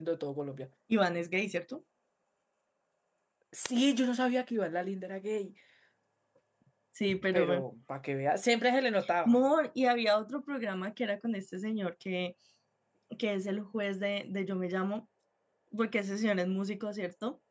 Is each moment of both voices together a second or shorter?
Yes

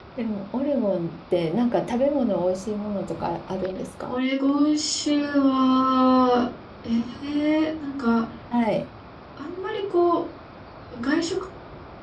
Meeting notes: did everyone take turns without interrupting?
Yes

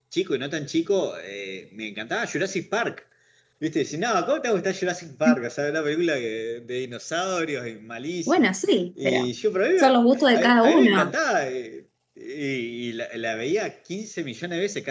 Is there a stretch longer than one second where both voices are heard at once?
Yes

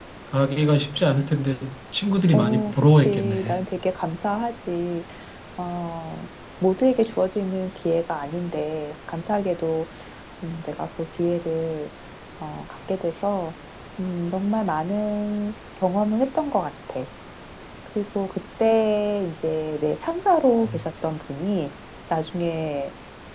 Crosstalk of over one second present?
Yes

